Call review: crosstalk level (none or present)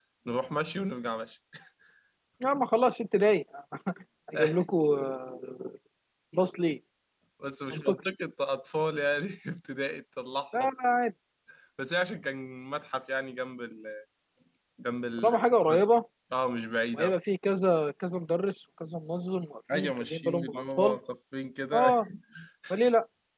present